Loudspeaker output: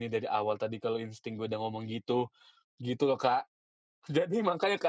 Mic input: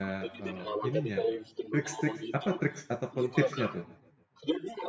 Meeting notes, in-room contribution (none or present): present